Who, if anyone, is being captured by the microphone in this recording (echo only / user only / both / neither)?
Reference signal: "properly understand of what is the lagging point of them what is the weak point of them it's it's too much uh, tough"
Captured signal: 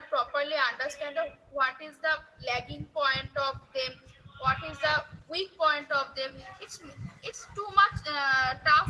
echo only